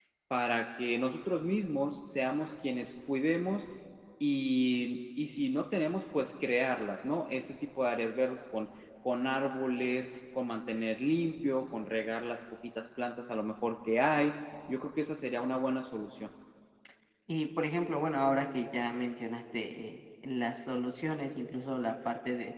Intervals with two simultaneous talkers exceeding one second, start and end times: none

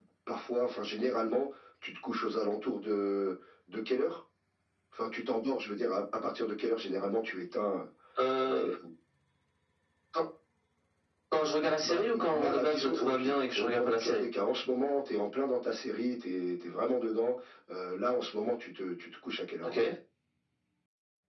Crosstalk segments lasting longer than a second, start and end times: 11.8-14.2

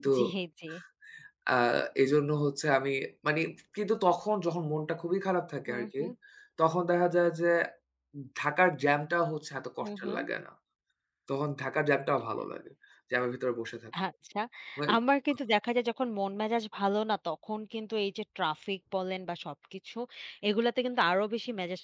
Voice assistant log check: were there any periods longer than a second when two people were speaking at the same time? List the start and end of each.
none

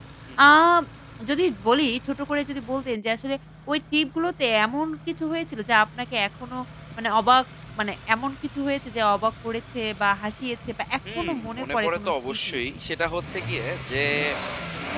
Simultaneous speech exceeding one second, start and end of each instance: 11.2-12.6

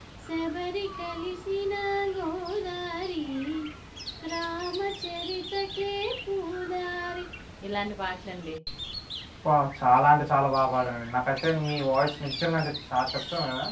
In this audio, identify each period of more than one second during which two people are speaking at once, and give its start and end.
none

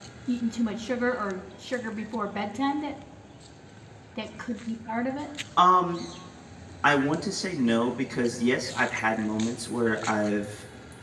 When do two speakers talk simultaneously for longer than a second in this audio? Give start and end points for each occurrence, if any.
none

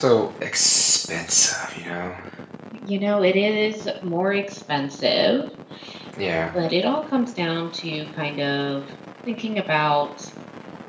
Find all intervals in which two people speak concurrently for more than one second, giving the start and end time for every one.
none

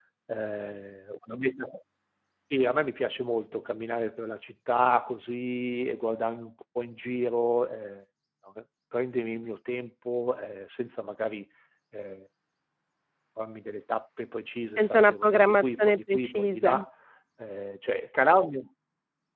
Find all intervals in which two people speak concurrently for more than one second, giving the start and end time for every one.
14.8-16.8

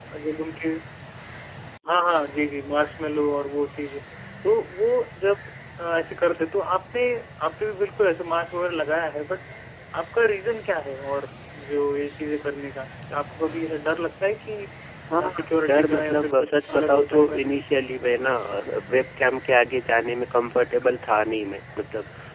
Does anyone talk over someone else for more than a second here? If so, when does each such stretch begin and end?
15.7-17.4

